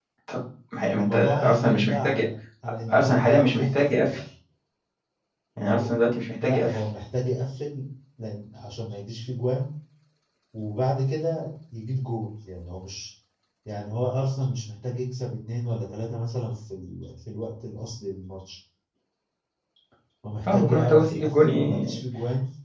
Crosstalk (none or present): present